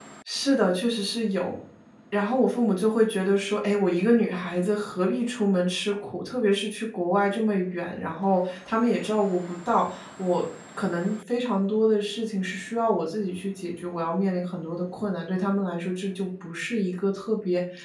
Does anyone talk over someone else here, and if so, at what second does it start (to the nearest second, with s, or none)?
none